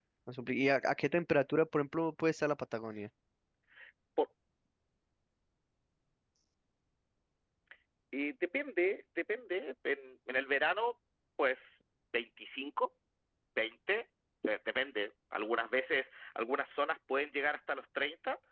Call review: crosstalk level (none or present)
none